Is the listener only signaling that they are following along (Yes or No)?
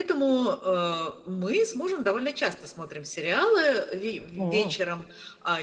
Yes